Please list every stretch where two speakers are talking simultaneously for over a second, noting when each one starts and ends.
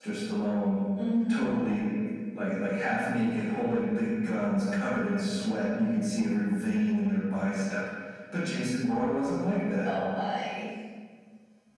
none

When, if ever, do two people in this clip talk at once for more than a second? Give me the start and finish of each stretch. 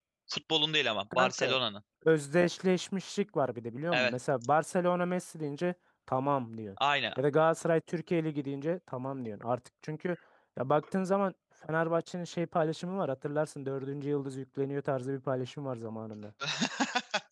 none

